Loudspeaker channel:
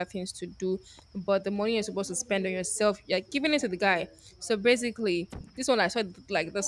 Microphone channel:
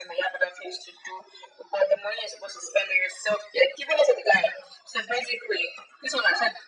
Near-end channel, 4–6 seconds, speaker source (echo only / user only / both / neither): echo only